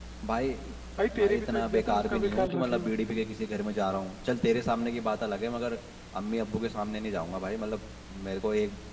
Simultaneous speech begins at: 1.1 s

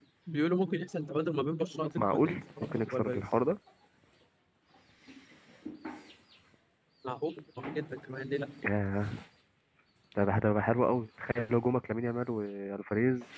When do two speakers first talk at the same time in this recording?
2.0 s

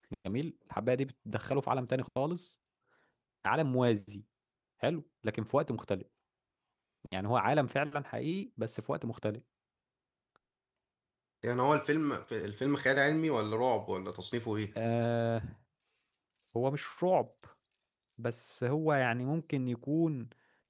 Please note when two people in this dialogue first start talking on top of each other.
none

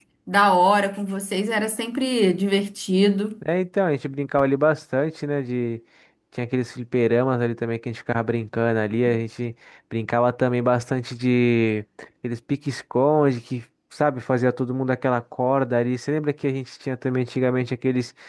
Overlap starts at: none

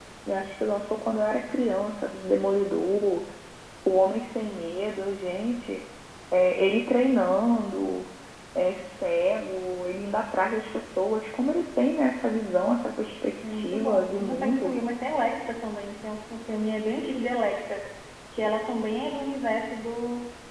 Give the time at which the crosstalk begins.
13.4 s

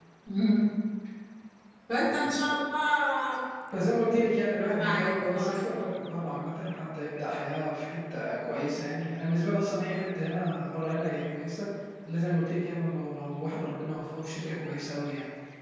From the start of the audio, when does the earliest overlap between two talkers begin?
4.6 s

